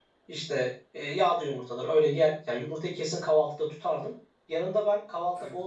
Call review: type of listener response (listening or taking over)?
listening